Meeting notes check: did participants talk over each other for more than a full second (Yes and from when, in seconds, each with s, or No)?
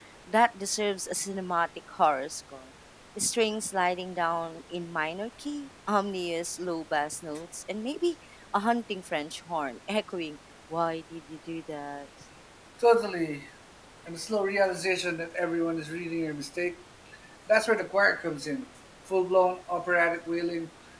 No